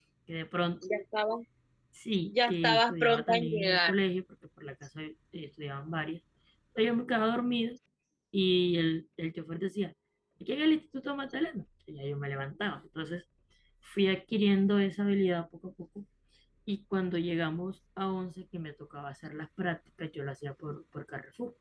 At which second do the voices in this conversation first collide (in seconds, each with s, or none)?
2.3 s